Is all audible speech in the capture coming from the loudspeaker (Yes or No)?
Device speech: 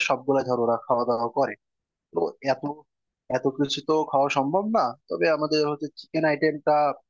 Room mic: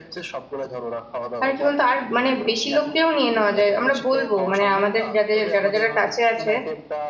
No